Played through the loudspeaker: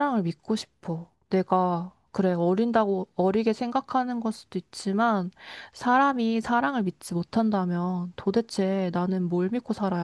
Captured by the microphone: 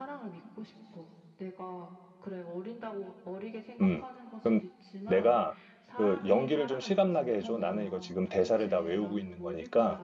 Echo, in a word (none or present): present